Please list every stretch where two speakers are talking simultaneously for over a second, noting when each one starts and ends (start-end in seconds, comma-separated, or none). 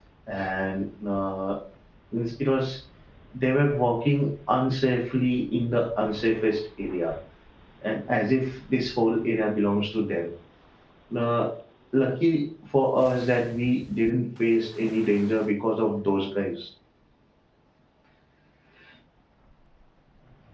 none